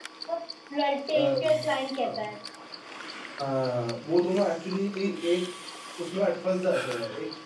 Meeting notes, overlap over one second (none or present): none